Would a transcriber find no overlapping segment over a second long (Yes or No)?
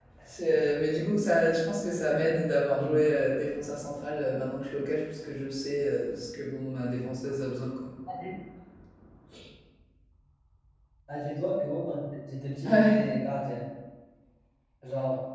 Yes